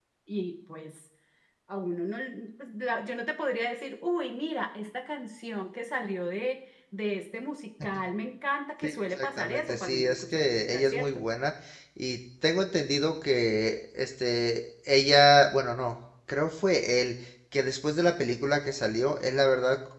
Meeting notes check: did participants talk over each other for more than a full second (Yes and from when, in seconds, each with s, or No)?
Yes, from 8.8 s